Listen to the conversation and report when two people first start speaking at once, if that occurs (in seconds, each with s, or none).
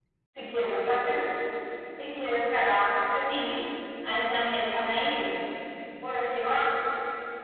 none